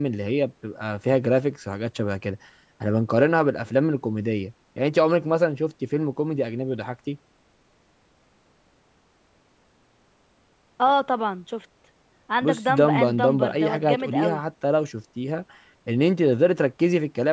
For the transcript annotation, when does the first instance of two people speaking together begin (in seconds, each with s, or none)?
12.4 s